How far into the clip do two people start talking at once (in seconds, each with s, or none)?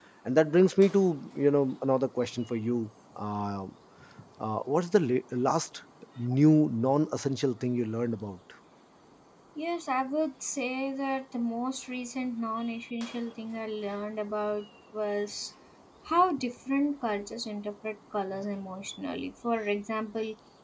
none